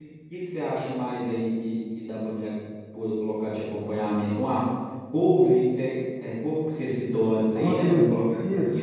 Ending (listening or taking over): taking over